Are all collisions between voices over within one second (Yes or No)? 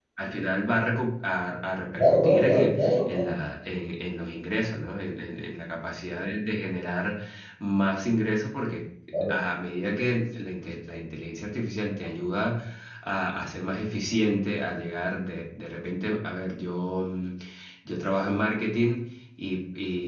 No